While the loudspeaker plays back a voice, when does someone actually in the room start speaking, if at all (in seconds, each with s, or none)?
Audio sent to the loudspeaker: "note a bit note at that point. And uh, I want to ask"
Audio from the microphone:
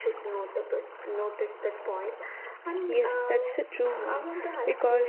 2.8 s